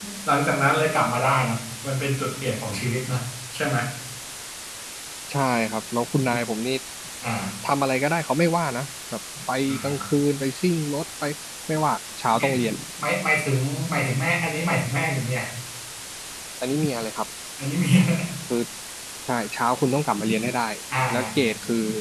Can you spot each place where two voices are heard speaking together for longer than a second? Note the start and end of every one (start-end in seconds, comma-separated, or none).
none